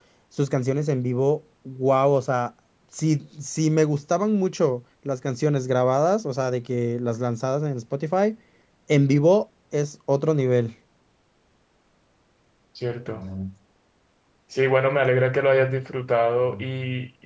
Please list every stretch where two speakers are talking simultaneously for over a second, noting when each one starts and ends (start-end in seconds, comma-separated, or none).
none